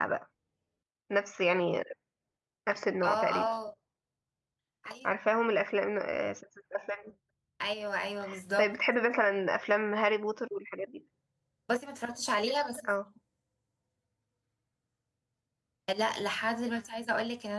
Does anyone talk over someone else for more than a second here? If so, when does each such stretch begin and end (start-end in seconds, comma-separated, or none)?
none